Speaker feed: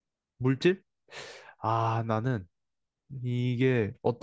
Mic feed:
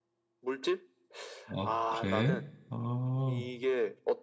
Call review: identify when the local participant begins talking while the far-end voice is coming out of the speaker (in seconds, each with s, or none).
1.5 s